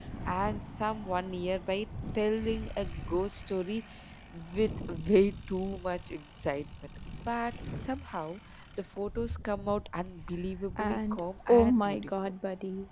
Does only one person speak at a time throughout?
No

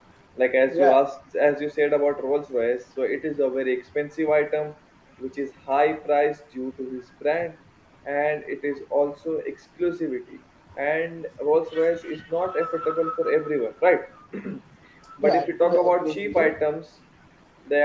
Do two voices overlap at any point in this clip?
Yes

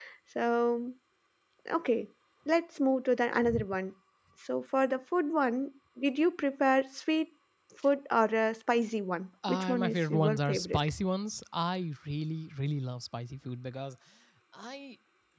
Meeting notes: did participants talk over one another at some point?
Yes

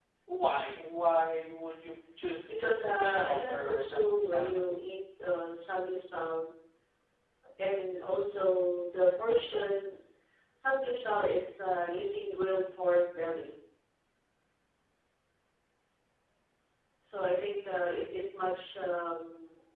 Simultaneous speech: Yes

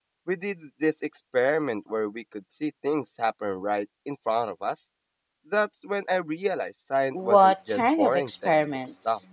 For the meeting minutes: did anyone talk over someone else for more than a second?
Yes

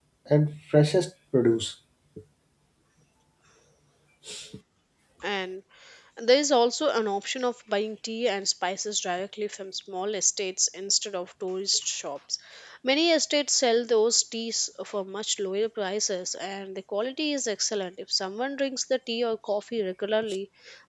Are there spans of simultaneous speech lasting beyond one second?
No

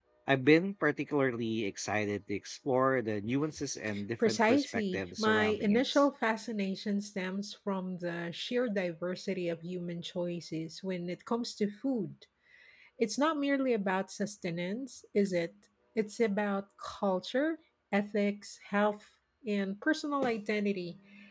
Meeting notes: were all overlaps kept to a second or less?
No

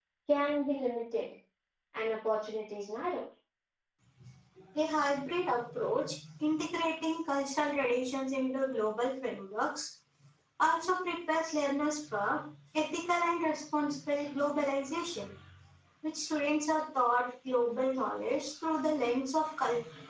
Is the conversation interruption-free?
Yes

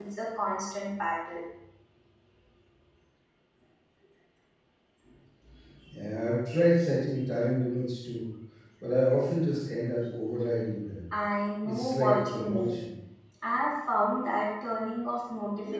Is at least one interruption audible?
Yes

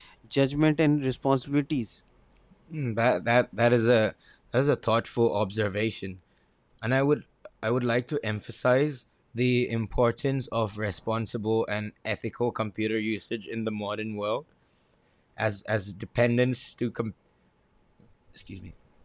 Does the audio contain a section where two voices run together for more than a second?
No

